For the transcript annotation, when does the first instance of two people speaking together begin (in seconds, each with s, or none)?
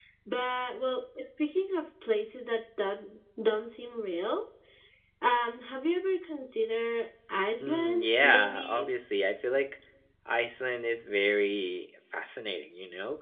7.6 s